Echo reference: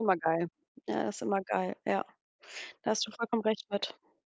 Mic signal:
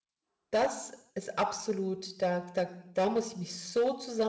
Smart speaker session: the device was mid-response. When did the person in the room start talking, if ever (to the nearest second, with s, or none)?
1 s